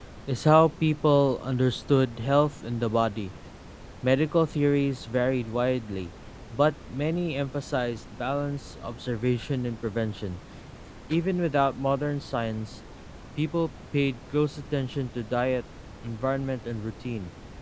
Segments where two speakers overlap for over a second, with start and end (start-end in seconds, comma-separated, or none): none